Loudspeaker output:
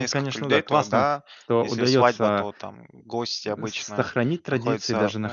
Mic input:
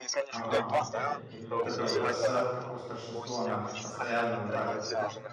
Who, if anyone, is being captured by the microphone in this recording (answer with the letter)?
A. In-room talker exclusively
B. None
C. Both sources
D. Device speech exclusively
C